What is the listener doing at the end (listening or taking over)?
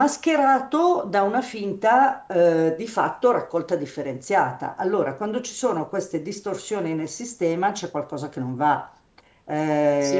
taking over